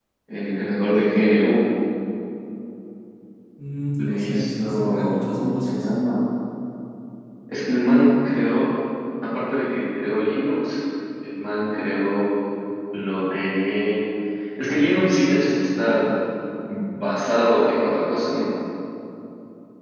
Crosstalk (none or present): present